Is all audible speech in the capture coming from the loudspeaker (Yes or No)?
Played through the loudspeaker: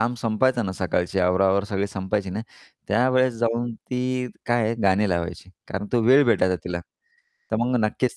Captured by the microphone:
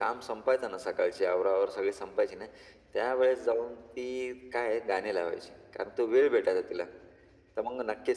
Yes